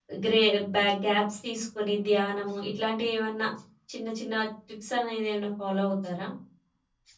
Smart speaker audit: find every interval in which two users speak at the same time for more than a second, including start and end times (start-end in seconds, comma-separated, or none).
none